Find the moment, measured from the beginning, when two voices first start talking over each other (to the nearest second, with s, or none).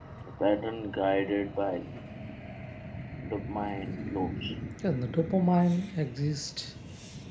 none